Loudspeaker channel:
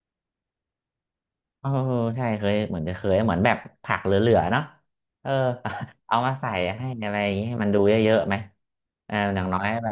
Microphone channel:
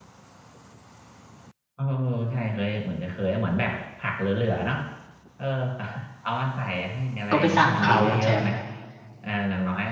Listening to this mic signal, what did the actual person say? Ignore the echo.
ก็ไปสั่งเขาคุณแชมป์

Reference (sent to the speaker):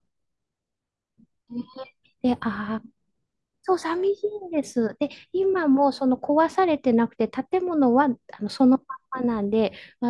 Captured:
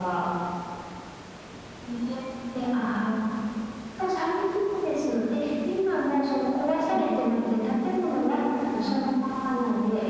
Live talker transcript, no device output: うん

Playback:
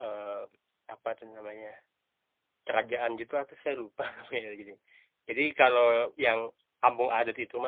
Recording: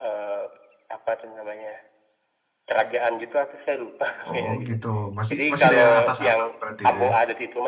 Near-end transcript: Oh gitu, masih masih daerah atas-atas berarti itu ya,

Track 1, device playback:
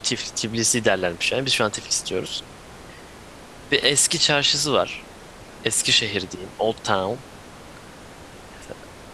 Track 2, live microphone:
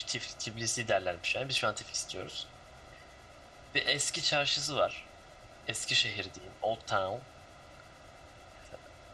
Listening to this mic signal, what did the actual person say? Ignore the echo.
none

